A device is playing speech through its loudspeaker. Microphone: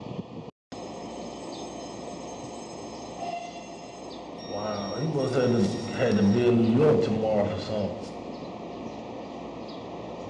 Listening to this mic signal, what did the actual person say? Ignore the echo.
Wow, he must had to had to be in New York tomorrow for something.

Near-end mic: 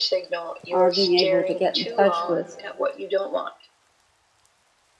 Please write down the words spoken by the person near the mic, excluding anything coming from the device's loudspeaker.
our being able to get in touch with

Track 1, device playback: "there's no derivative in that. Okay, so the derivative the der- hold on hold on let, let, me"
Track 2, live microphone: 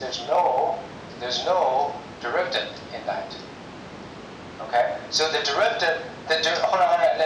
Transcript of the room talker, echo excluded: none

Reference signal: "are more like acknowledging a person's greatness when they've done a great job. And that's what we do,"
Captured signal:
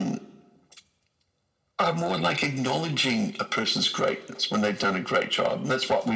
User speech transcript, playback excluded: none

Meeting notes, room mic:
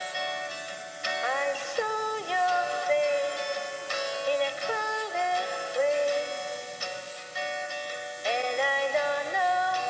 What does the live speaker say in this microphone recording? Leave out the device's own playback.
none

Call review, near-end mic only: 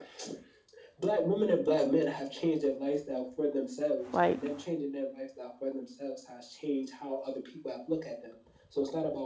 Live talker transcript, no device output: like,

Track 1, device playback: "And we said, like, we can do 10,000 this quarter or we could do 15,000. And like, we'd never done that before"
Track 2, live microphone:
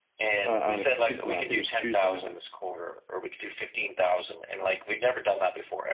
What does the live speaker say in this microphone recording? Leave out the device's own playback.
uh, on a particular i think it was tuesday night

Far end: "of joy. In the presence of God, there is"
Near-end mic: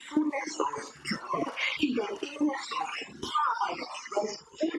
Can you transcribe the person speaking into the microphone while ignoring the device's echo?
none

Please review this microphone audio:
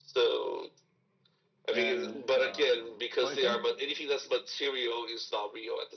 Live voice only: And um, so I think

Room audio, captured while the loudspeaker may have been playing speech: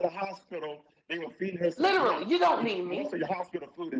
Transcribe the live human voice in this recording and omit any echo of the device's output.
Literally, you don't need me.

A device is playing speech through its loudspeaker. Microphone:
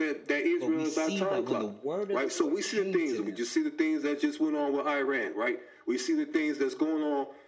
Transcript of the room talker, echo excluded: but we see that when the word of the Lord came to them,

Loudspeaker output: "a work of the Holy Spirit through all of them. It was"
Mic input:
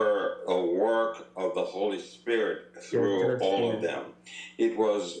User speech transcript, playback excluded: Yeah, just the-

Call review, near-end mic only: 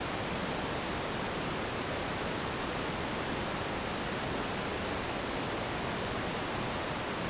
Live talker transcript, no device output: none

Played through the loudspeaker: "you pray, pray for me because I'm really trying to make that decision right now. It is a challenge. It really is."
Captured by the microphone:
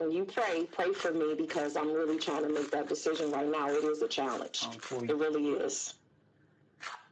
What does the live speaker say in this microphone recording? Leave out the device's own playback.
um, for

